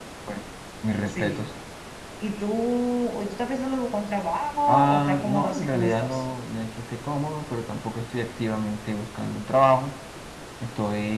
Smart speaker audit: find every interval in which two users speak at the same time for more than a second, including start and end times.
4.7-6.2

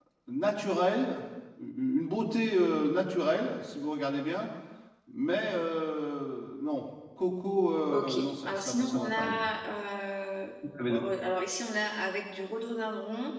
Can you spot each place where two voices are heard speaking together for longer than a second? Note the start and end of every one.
7.9-9.4

